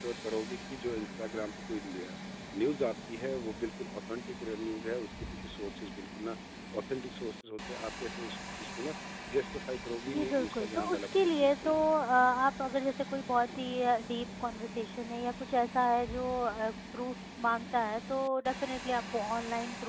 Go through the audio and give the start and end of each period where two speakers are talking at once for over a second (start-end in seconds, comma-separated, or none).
10.1-11.8